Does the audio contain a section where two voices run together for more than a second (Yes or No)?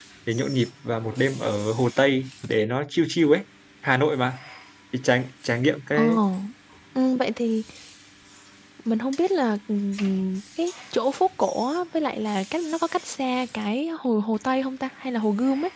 No